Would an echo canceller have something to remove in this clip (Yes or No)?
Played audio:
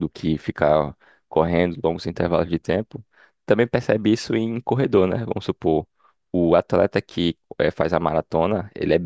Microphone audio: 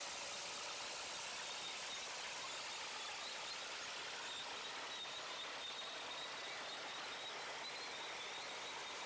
No